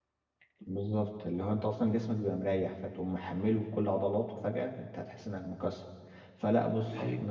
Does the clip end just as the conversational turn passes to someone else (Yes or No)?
No